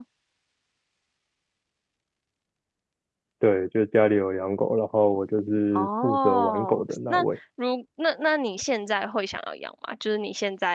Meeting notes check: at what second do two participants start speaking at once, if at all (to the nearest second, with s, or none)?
6 s